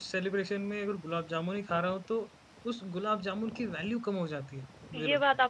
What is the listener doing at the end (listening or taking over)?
taking over